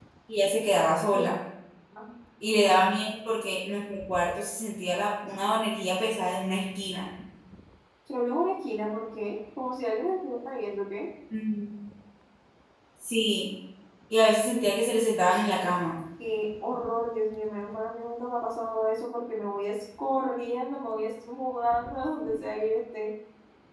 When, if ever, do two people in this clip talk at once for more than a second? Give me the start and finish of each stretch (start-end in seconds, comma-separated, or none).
none